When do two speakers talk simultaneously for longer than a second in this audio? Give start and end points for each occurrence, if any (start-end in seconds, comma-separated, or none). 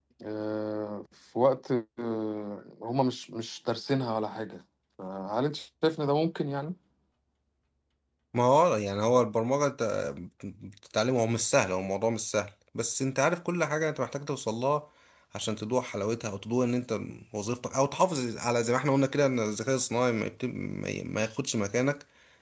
none